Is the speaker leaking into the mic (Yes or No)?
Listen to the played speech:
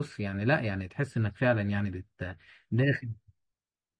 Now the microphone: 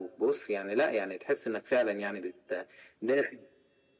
Yes